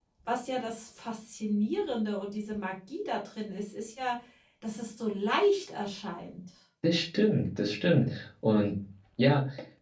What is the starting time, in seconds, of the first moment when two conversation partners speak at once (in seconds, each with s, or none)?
none